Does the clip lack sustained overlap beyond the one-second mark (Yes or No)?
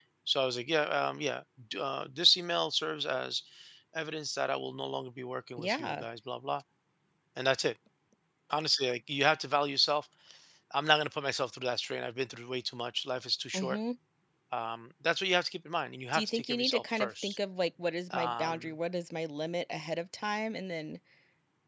No